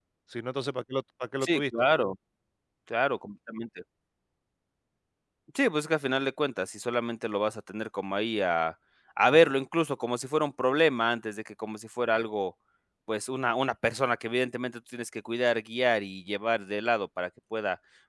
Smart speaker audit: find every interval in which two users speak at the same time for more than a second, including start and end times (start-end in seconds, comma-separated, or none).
none